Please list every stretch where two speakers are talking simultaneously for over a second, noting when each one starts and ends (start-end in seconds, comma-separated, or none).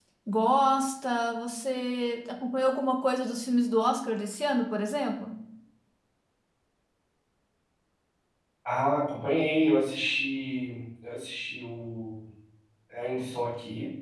none